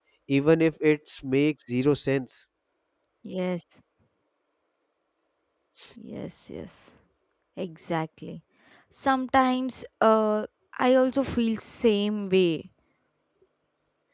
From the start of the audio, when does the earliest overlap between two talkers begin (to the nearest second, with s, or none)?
none